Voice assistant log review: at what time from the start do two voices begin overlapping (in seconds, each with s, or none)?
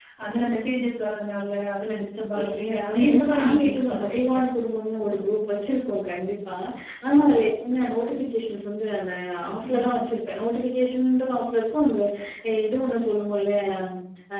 2.4 s